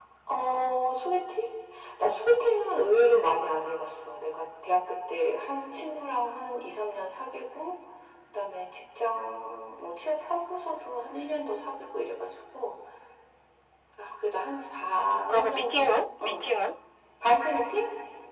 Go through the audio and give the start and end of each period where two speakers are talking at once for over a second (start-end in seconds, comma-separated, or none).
14.8-16.4